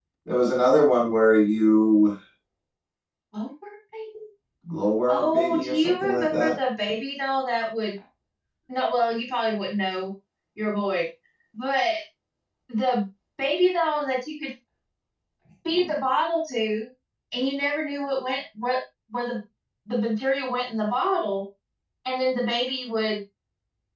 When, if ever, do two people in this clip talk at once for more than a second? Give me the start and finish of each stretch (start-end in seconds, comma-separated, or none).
5.1-6.6